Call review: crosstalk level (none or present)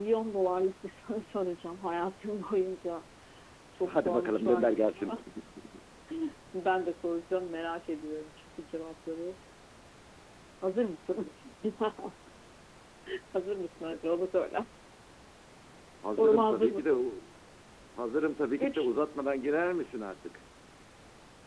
present